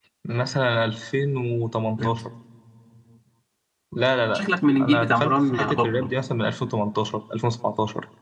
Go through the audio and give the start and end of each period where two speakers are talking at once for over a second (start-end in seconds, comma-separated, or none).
4.8-6.1